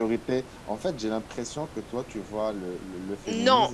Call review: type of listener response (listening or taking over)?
taking over